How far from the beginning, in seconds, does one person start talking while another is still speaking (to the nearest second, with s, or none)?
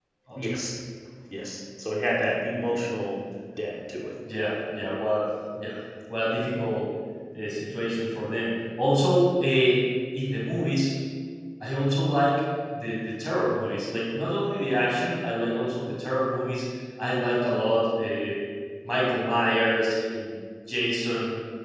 none